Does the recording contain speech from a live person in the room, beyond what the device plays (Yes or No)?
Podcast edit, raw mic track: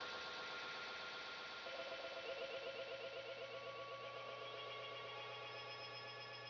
No